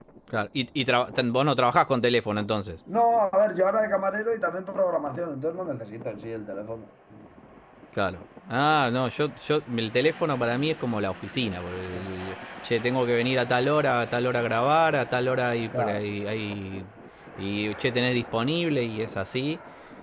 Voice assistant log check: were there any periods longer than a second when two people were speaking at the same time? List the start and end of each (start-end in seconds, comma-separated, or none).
none